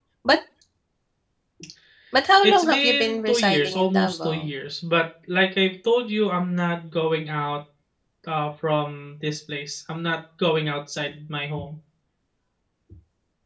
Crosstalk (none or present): present